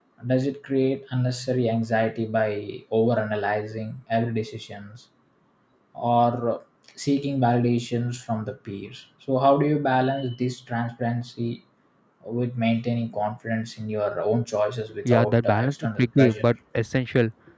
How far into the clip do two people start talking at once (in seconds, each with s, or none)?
14.9 s